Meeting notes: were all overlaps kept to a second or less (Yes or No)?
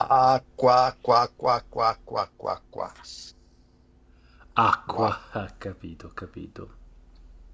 Yes